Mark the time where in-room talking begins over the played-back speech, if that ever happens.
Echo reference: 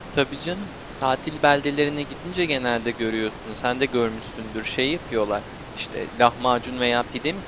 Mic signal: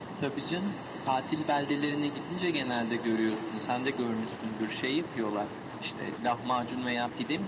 none

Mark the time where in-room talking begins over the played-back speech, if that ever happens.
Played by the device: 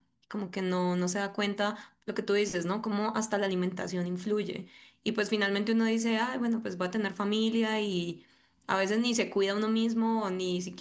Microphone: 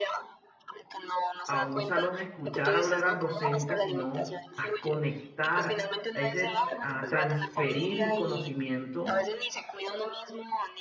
1 s

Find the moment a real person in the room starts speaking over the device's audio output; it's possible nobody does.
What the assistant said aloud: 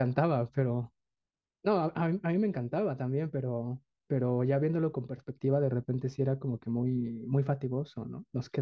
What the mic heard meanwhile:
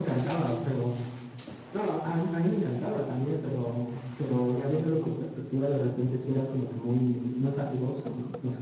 none

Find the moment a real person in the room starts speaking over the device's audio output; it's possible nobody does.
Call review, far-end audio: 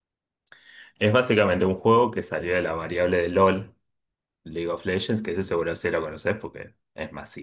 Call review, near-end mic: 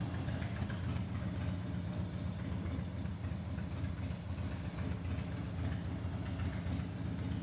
none

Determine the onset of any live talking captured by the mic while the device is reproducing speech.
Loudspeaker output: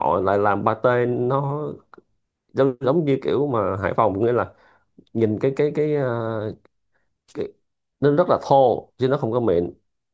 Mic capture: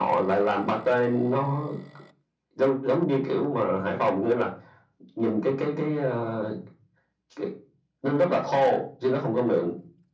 none

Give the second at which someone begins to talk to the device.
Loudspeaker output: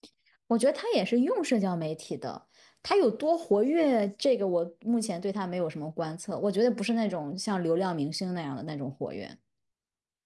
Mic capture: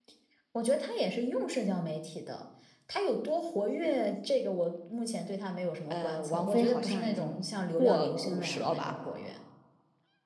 6 s

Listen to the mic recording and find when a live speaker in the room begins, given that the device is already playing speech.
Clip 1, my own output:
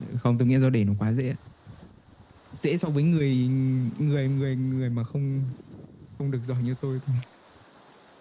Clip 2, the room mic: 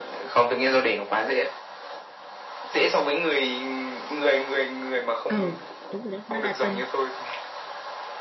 5 s

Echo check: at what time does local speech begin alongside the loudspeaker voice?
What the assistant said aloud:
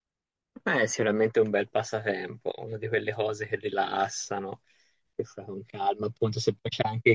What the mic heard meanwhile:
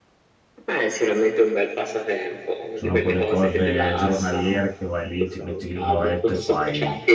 3 s

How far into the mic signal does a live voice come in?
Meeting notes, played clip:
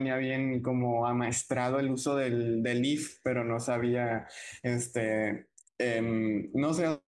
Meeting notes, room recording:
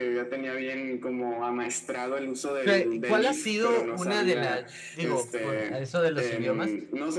3 s

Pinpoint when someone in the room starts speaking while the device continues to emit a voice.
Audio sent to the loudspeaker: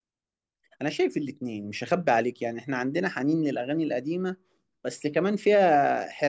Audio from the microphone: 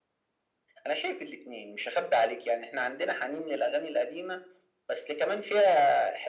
none

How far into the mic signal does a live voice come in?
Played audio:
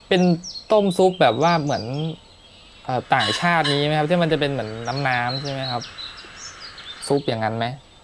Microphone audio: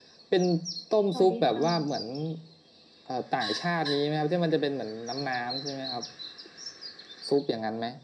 1 s

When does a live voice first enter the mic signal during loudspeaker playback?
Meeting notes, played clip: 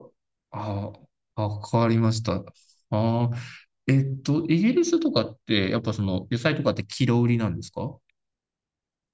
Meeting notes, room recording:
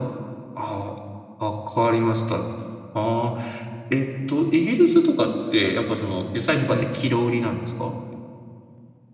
7 s

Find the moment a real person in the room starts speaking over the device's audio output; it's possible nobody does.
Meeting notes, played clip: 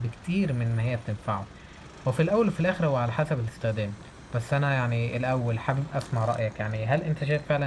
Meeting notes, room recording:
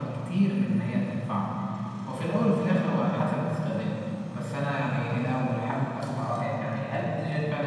none

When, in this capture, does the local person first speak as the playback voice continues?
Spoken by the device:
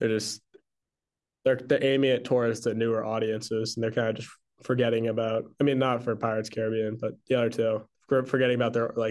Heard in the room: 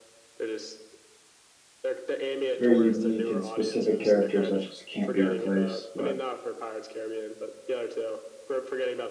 3 s

